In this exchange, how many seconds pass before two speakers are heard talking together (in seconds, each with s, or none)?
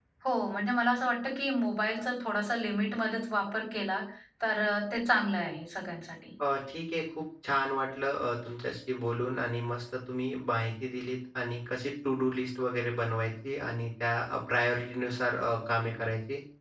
none